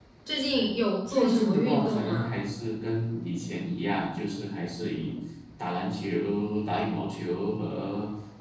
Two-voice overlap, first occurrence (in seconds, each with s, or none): 1.1 s